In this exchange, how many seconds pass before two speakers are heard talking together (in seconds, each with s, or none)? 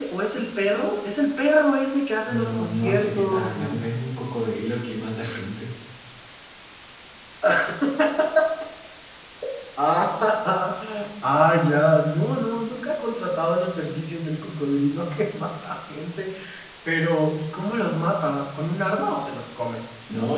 2.3 s